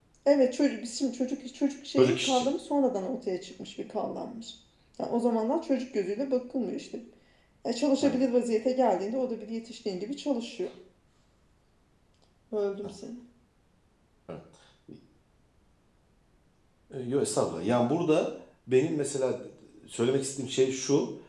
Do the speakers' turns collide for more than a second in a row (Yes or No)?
No